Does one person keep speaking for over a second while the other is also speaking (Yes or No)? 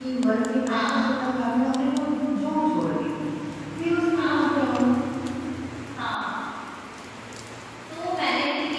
No